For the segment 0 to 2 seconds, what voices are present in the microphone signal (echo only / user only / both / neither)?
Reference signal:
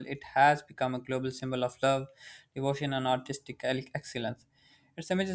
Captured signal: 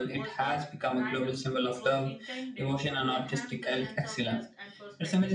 both